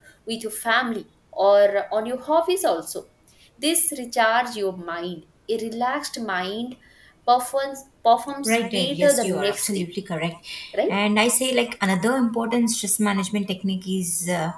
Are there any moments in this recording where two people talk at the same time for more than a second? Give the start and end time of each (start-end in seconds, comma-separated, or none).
8.4-9.8